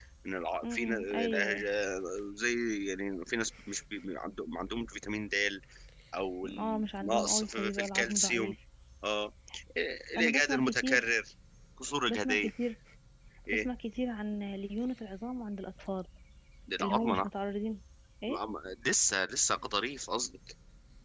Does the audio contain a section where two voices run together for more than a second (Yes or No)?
Yes